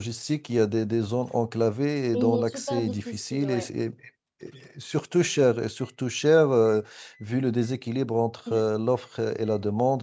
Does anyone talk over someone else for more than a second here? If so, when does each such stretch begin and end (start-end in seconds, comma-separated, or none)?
2.1-3.7